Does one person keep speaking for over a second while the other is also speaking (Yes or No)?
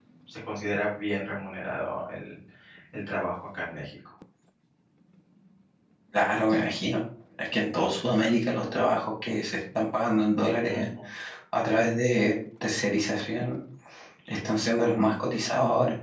No